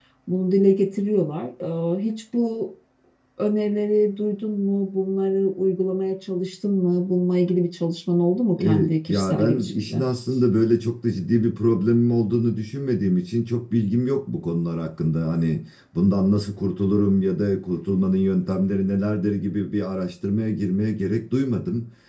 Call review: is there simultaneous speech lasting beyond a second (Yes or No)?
Yes